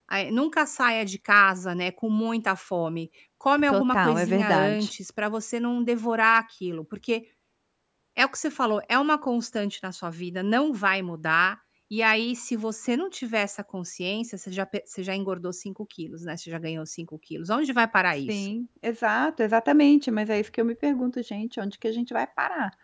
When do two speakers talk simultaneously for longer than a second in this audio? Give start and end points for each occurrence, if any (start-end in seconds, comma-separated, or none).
3.7-4.9